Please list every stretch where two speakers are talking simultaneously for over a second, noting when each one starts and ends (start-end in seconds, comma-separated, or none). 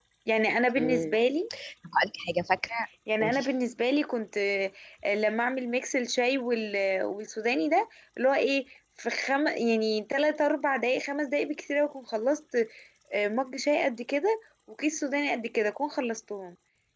none